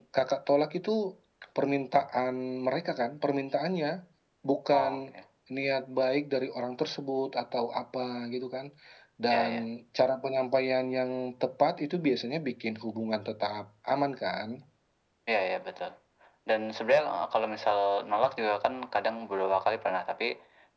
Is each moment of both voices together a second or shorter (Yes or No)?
Yes